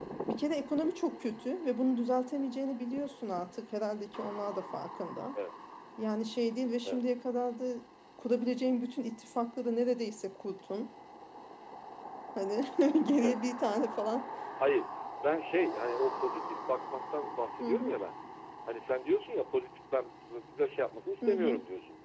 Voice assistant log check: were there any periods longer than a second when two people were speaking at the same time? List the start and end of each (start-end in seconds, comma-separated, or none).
none